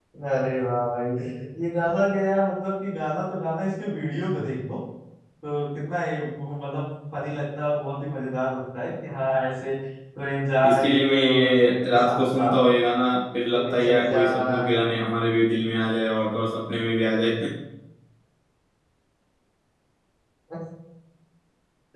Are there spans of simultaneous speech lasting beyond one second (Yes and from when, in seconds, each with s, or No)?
Yes, from 10.6 s